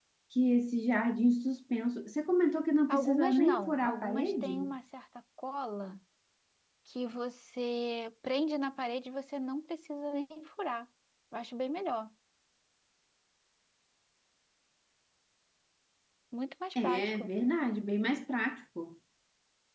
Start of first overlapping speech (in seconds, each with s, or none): 2.9 s